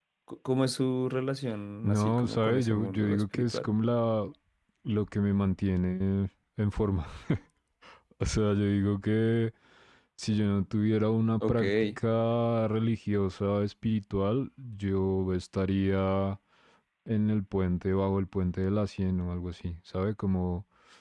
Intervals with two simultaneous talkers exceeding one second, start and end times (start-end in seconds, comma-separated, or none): 1.8-3.7